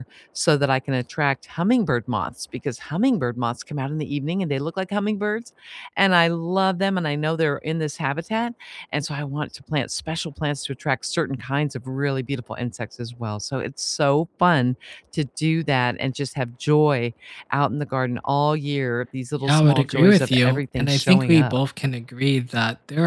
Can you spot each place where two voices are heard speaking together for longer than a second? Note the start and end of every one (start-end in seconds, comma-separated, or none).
19.4-21.6